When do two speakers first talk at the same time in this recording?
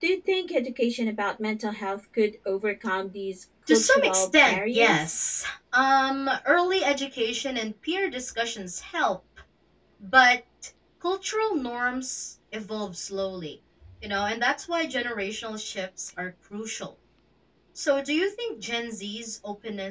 3.7 s

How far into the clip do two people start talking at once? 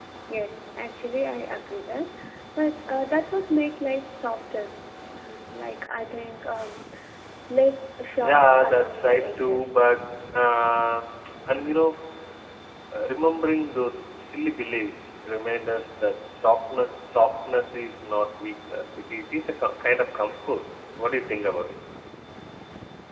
8.3 s

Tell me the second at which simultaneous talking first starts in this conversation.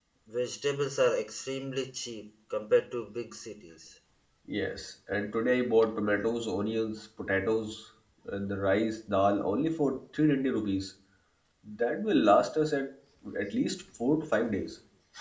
none

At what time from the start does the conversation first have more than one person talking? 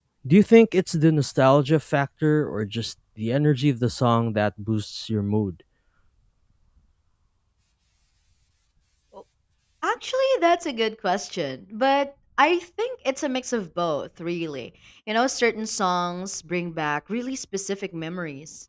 none

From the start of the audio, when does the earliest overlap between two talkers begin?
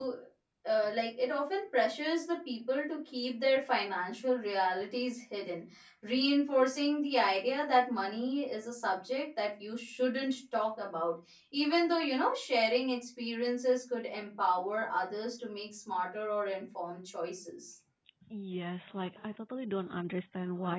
none

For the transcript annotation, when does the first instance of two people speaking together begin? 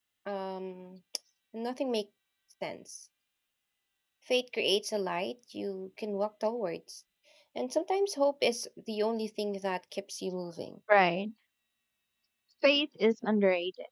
none

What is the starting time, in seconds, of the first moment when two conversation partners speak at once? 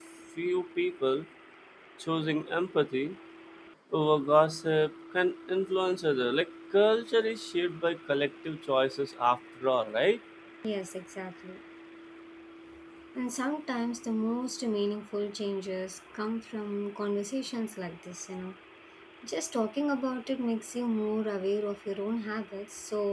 none

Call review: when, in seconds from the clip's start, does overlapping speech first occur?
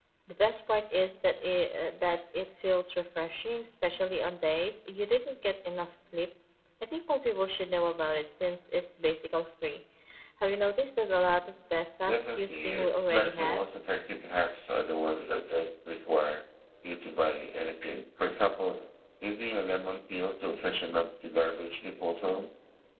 12.1 s

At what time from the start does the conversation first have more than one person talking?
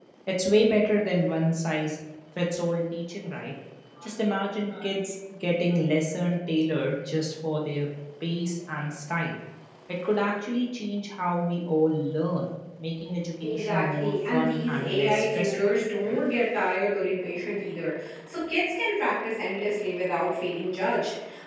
13.4 s

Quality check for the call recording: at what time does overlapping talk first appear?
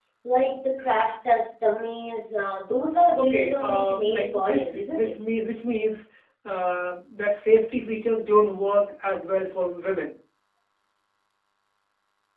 3.2 s

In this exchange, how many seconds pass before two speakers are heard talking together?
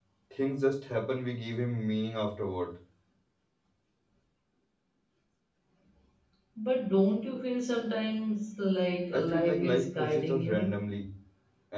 9.1 s

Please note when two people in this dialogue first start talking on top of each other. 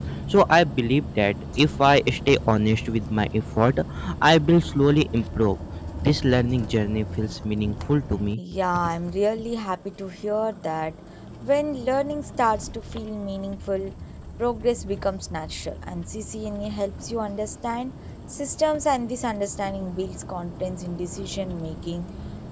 none

